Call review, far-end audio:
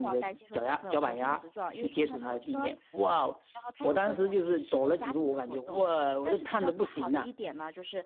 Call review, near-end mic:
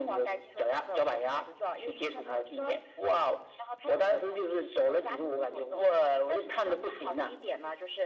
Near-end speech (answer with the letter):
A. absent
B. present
A